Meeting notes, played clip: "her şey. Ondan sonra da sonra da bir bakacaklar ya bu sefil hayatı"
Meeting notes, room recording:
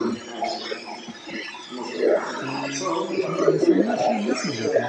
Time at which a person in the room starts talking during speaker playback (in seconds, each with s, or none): 2.4 s